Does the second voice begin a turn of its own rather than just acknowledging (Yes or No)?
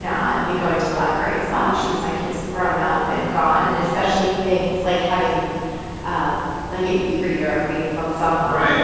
Yes